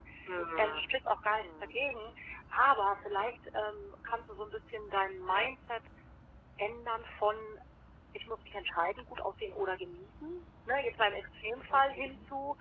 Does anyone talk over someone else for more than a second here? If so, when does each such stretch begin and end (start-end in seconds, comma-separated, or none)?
none